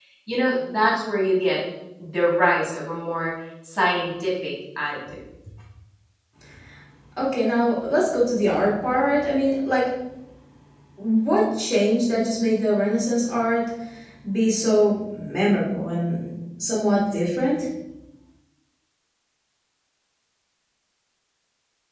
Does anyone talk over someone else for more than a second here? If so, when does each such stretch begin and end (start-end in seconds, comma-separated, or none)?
none